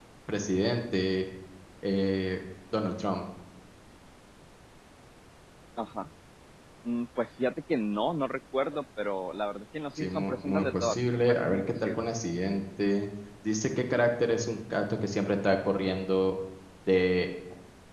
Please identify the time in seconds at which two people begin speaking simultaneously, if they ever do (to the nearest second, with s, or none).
10 s